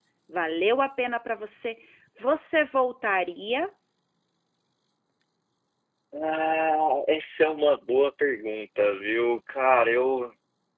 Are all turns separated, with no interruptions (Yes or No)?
Yes